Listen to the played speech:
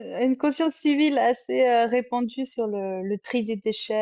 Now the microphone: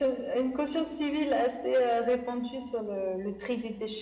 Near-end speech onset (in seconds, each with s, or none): none